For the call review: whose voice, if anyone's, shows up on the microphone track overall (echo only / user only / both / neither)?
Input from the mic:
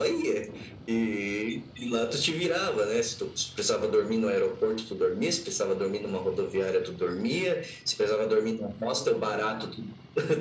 echo only